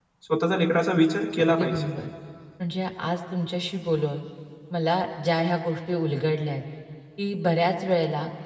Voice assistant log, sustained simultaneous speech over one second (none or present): none